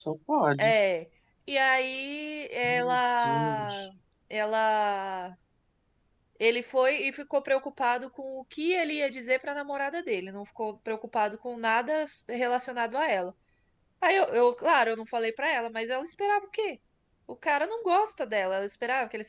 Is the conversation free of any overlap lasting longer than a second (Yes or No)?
No